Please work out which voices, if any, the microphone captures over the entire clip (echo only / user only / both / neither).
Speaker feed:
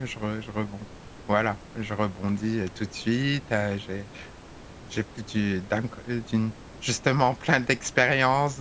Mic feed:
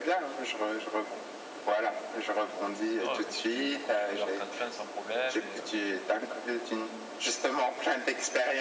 both